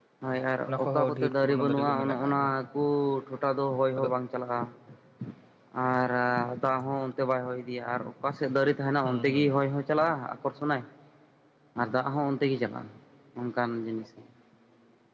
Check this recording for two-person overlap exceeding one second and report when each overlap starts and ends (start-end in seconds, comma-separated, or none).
0.7-2.5